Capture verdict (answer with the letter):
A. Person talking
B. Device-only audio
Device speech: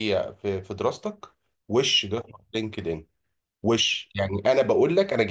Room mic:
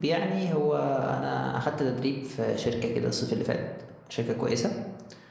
A